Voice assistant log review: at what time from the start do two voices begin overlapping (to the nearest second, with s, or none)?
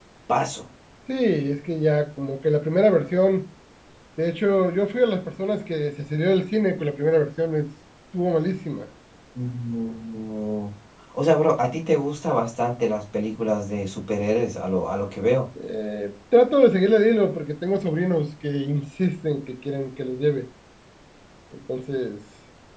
none